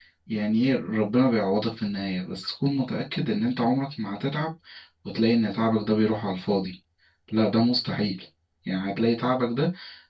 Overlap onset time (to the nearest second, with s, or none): none